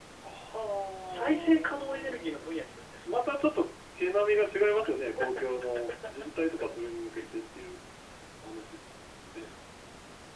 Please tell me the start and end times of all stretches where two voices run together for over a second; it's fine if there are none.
1.1-2.3

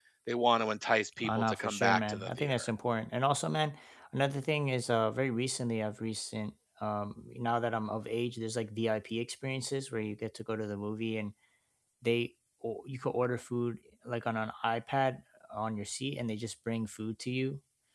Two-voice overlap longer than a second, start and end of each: 1.2-2.6

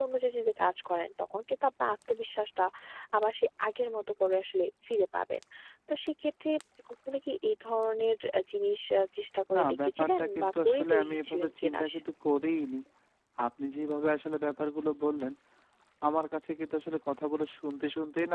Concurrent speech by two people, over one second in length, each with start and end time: 9.6-11.9

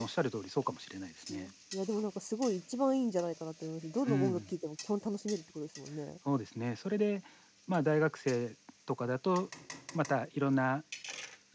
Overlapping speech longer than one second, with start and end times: none

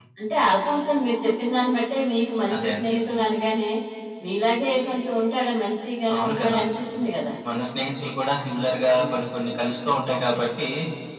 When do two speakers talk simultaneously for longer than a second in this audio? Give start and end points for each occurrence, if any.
none

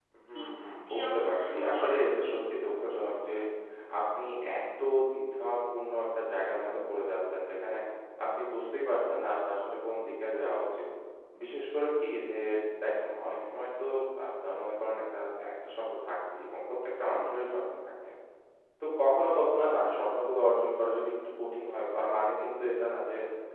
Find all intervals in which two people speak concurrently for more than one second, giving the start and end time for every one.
0.9-2.3

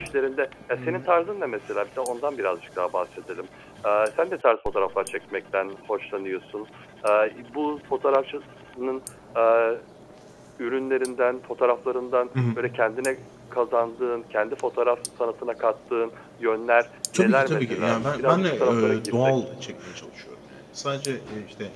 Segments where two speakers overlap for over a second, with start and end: 17.1-19.3

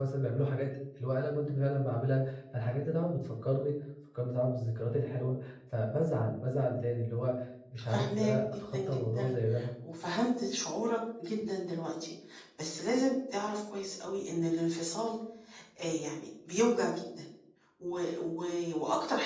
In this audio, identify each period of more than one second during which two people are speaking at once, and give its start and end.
7.9-9.3

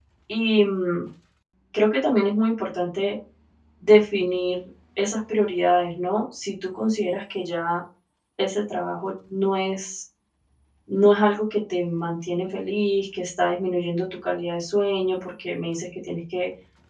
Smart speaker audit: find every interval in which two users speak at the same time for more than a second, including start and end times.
none

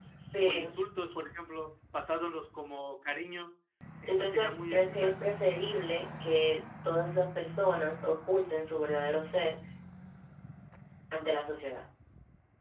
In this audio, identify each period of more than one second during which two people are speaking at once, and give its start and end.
4.1-5.3

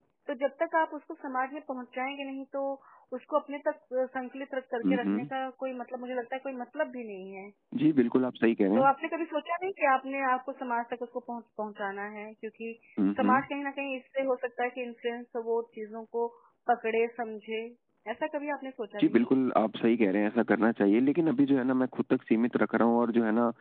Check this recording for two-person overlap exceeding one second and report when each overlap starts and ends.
none

